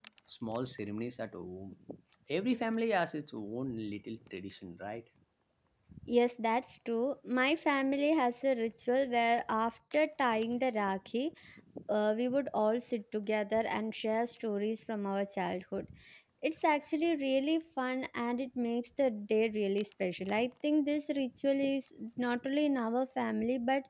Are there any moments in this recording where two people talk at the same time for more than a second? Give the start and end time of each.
none

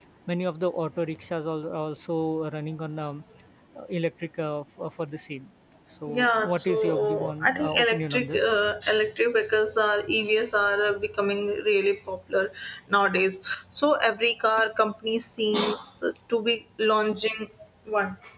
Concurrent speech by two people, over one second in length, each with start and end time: 6.1-8.7

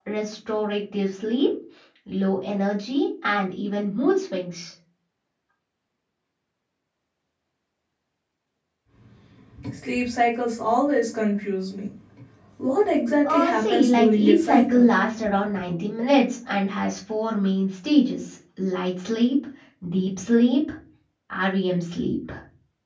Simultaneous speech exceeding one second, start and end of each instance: 13.2-14.9

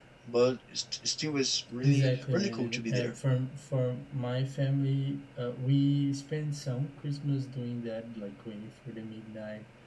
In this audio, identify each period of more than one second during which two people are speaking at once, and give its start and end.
1.8-3.1

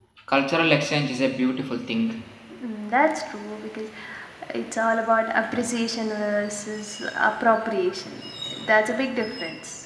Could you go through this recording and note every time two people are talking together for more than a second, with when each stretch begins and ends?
none

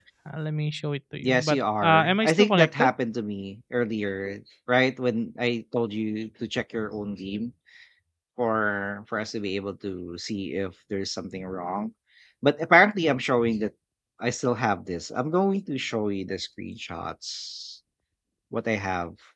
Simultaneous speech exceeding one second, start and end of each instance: 1.2-2.9

